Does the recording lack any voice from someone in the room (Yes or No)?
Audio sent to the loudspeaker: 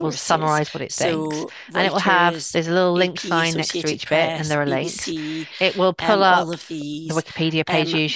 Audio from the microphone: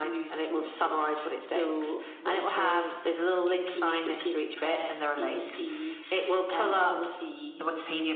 Yes